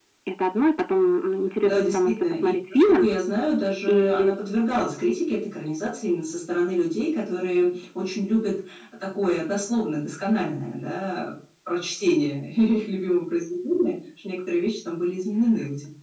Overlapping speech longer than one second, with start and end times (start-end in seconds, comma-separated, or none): 1.6-3.1